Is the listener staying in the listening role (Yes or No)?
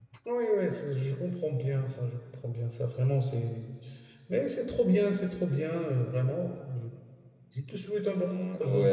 No